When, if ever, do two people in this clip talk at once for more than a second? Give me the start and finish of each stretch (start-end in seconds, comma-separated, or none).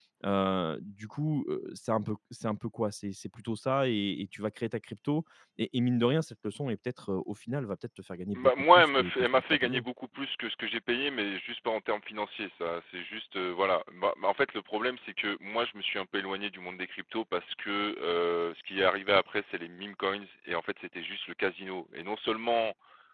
8.4-9.8